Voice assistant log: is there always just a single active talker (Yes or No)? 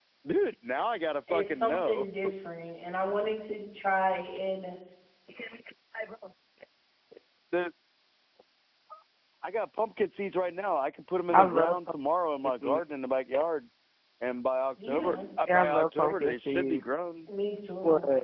No